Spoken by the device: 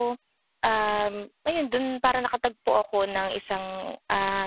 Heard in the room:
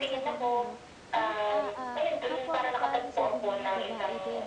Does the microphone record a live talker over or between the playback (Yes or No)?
Yes